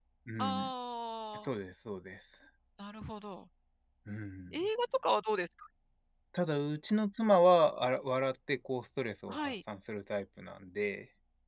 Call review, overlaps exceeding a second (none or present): none